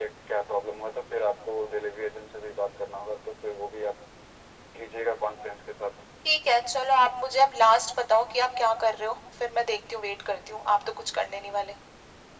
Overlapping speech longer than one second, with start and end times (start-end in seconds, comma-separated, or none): none